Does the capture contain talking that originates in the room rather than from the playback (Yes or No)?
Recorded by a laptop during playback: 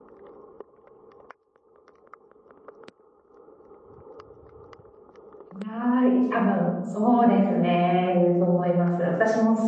Yes